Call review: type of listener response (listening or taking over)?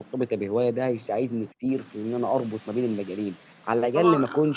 taking over